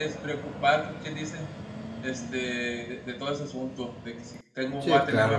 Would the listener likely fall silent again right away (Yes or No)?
Yes